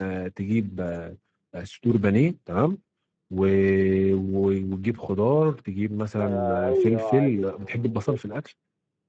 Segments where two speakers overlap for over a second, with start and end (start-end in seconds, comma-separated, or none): 6.2-8.2